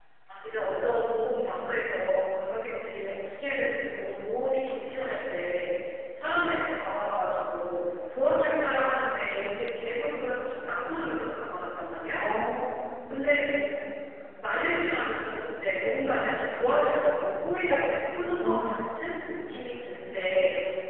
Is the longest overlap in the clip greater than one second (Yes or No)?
No